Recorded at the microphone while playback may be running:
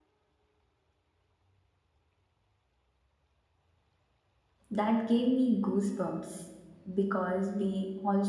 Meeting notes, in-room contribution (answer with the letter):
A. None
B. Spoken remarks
B